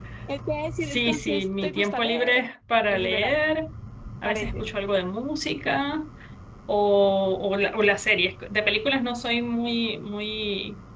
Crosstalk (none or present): present